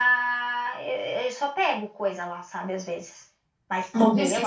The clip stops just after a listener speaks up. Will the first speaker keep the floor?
No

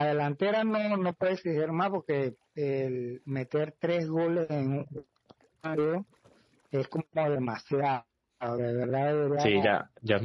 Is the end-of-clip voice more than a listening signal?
Yes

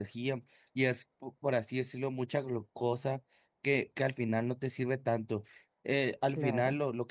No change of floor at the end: Yes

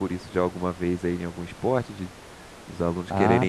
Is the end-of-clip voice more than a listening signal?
Yes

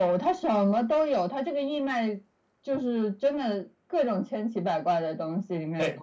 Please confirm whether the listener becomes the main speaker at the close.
Yes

